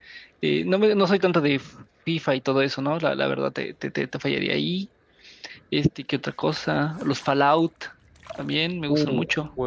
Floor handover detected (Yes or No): Yes